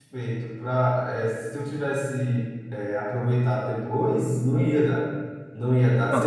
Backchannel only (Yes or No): Yes